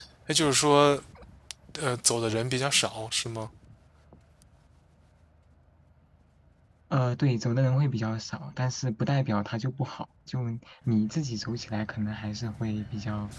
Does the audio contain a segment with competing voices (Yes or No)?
No